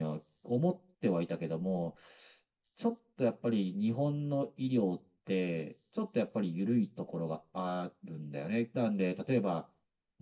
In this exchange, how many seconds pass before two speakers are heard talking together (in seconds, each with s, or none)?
none